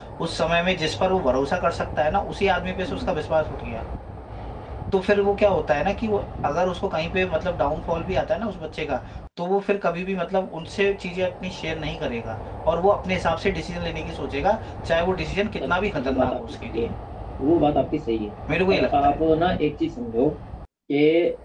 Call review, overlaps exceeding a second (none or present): present